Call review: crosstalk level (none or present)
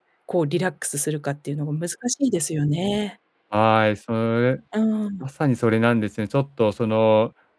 none